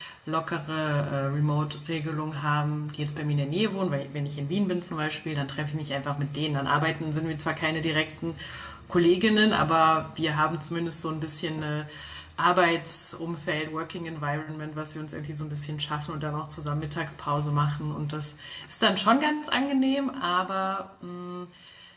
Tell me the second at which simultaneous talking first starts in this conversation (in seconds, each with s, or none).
none